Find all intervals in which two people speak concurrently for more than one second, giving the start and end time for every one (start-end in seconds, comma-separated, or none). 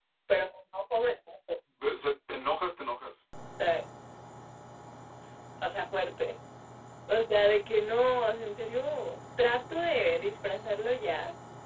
none